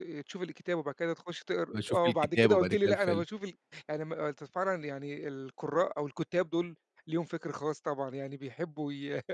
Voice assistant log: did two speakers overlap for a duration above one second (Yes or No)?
Yes